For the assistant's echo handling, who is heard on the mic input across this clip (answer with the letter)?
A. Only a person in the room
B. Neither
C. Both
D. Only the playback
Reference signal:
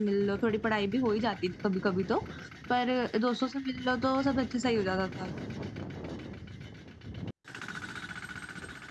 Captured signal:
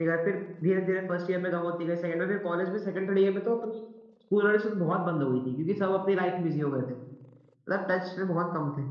A